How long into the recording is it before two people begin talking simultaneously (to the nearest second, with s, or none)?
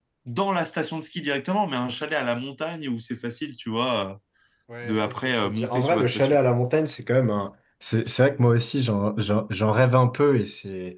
5 s